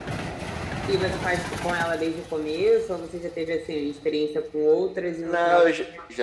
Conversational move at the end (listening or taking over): taking over